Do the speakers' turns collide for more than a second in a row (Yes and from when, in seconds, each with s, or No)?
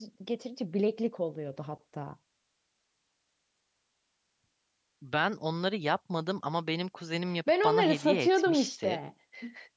Yes, from 7.5 s